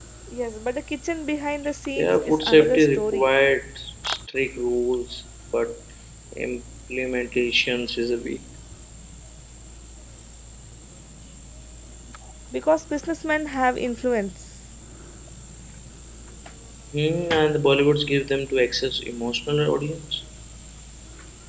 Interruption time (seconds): 2.0 s

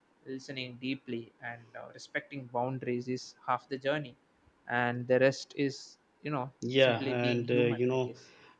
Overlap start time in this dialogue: 6.6 s

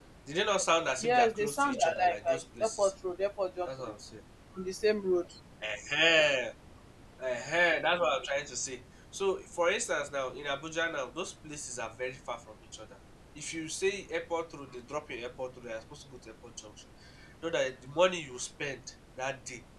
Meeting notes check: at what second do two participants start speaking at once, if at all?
1.0 s

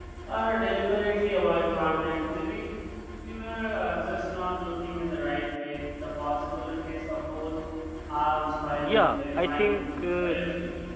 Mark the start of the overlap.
8.8 s

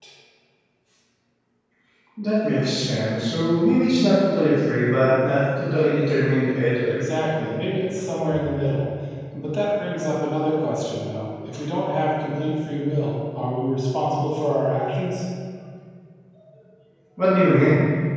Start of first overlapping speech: none

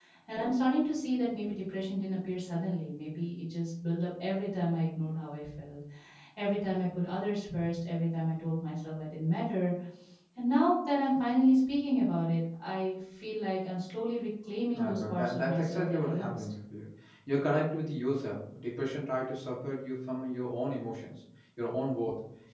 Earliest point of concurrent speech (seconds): 14.7 s

